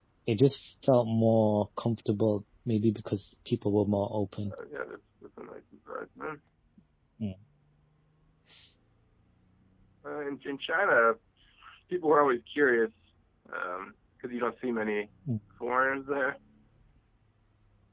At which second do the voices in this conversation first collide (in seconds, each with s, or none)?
none